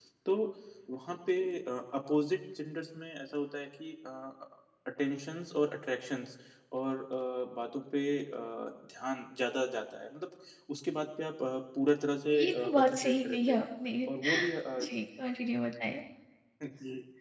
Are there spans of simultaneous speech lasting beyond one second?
Yes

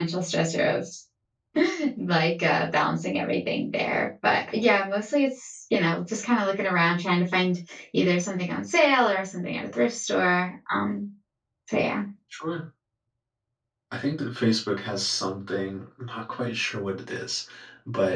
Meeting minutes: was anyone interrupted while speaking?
No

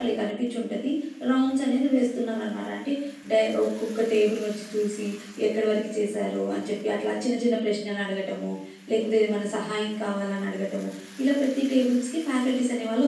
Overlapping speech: No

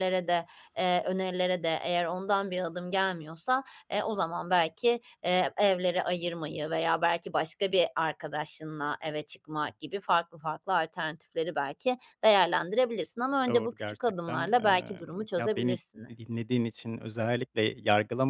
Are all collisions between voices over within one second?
No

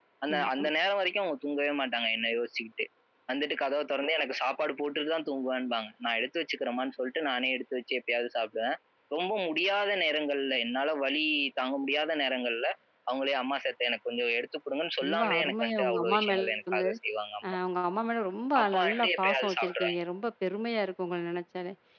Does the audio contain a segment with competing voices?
Yes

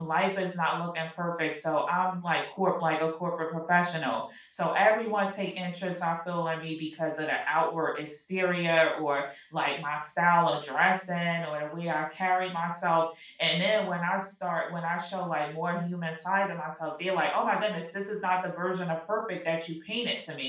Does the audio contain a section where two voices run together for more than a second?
No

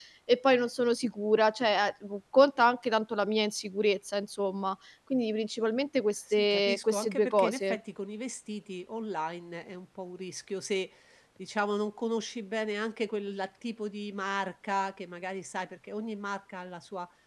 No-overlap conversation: No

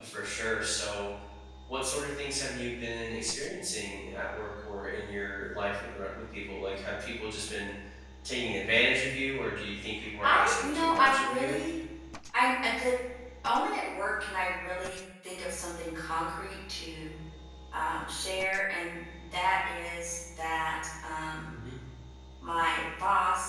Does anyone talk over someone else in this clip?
Yes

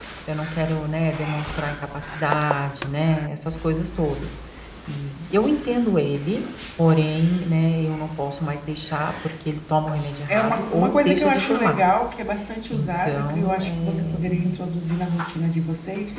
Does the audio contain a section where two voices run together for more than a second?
Yes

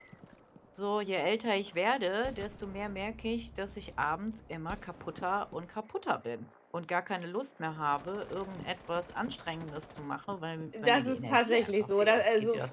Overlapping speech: Yes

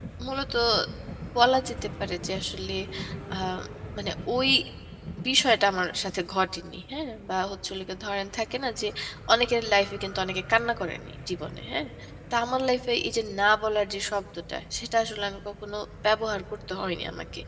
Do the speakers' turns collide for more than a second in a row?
No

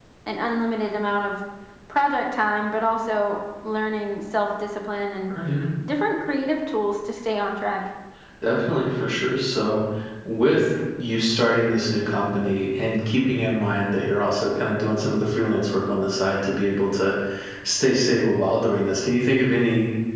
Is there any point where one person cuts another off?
No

